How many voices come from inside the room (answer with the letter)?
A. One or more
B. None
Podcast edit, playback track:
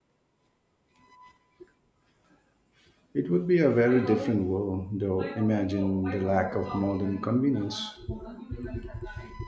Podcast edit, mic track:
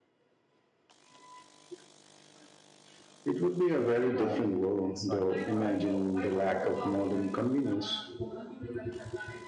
A